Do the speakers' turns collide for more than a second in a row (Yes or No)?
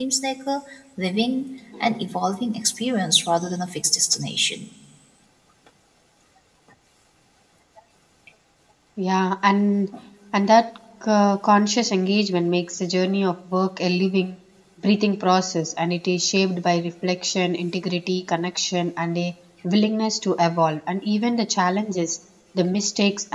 No